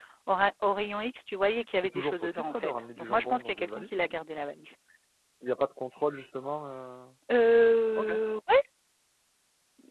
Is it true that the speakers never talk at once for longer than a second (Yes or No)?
No